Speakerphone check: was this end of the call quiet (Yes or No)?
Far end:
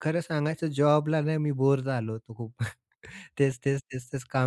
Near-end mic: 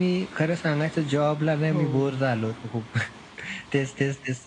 No